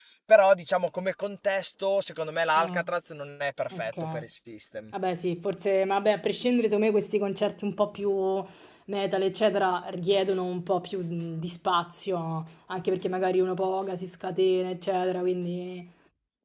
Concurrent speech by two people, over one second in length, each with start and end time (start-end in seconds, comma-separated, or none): none